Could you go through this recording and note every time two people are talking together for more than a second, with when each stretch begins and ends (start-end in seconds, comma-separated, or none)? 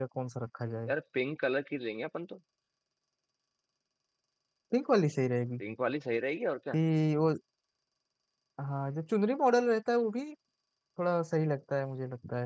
none